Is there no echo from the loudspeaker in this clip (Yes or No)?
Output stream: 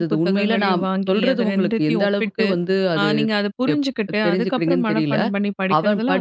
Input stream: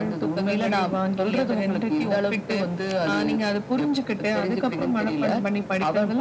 No